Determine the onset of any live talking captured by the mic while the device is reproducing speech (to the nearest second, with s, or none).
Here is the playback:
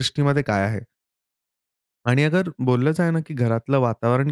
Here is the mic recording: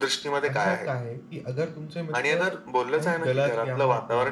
0 s